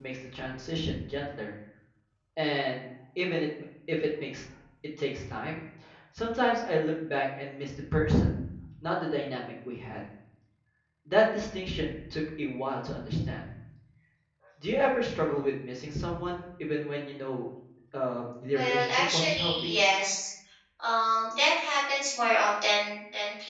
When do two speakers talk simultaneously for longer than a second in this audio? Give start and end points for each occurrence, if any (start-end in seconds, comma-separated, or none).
18.5-19.8